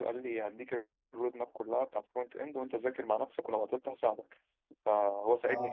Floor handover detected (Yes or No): Yes